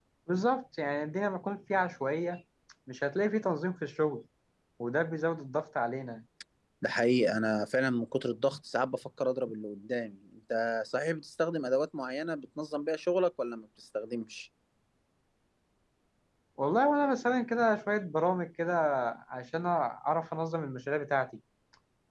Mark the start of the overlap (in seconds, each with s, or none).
none